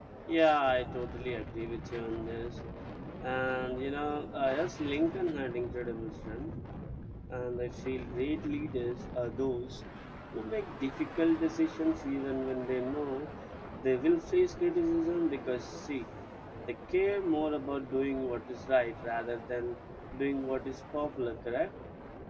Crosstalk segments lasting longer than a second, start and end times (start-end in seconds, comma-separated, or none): none